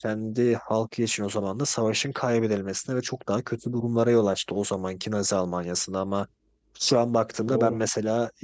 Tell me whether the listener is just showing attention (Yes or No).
Yes